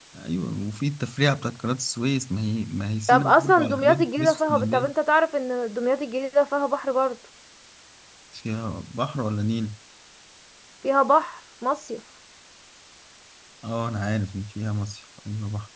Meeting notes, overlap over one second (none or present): present